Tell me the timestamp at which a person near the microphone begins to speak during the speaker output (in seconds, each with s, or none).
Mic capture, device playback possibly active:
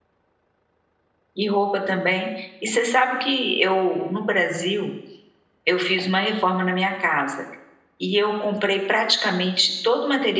1.3 s